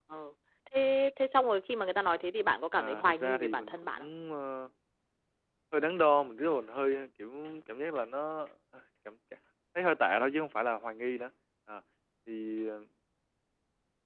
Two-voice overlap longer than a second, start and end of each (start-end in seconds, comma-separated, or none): 2.7-4.1